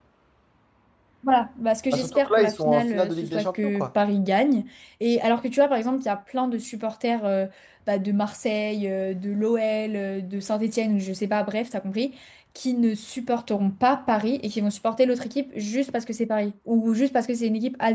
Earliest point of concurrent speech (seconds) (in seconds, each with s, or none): 1.9 s